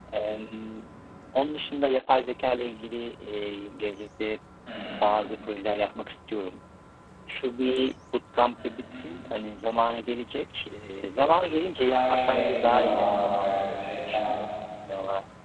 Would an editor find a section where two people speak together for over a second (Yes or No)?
Yes